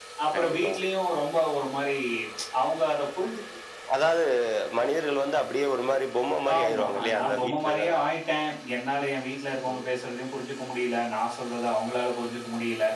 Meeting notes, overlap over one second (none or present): present